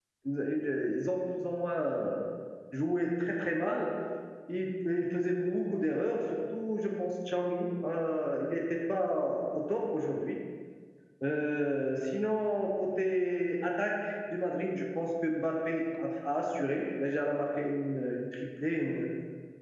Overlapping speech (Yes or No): No